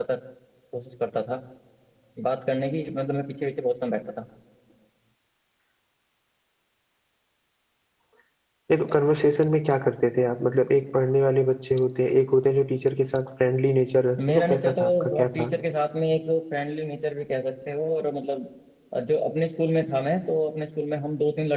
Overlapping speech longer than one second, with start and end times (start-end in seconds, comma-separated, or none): 14.3-15.5